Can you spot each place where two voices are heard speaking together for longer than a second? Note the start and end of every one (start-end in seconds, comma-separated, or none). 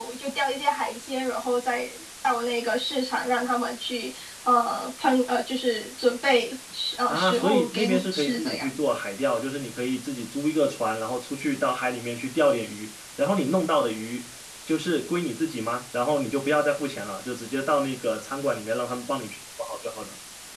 7.1-8.7